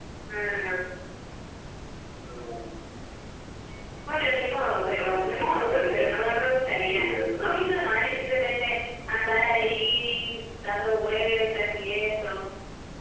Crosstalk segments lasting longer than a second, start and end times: 4.9-6.1

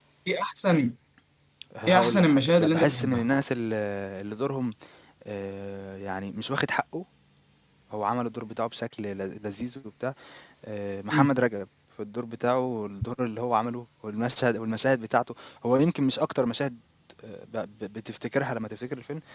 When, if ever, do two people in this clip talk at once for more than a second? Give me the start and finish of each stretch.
1.9-3.3

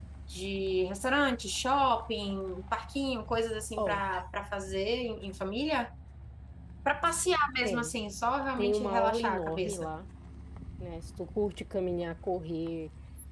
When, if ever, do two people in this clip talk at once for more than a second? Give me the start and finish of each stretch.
8.6-9.9

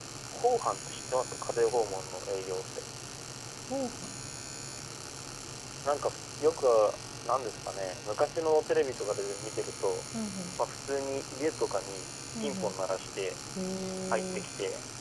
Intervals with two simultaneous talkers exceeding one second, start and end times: none

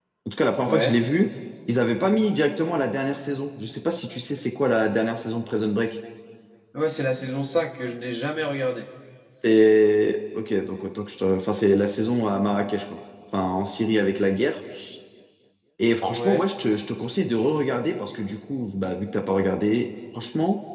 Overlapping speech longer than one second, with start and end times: none

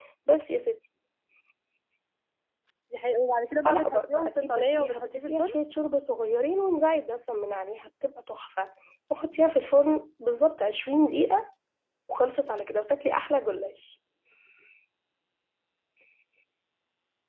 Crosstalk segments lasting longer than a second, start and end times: 3.6-5.5

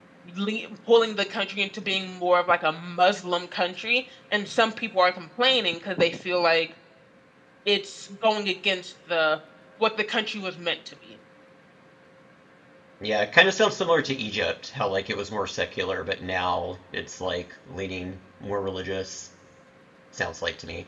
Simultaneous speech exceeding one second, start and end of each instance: none

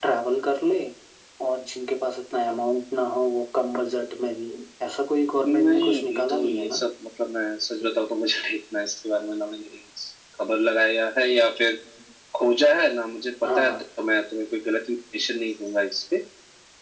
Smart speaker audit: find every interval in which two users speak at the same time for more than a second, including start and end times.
5.4-6.8

